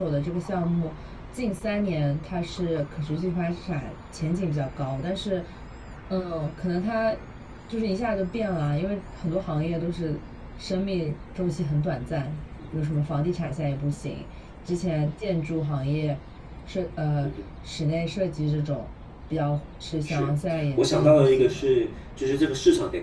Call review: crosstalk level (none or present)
present